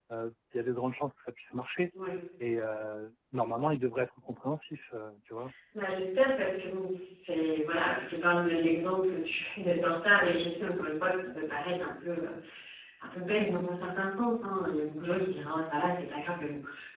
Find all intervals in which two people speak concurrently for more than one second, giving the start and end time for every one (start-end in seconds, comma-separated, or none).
none